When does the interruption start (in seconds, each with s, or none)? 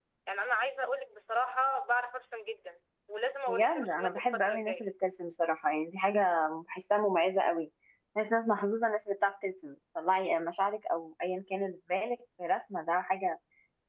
3.5 s